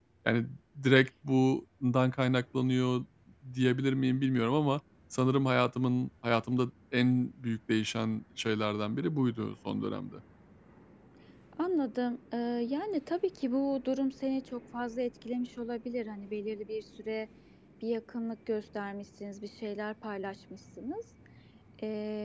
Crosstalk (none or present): none